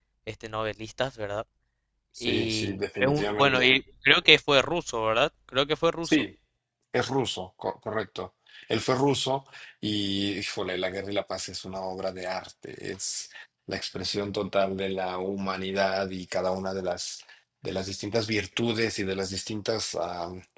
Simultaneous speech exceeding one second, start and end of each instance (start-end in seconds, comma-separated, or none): 2.2-3.7